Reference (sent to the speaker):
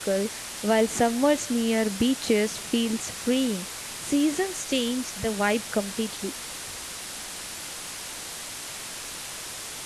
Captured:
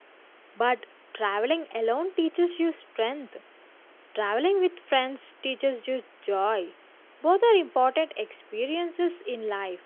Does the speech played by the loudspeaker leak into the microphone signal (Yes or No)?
No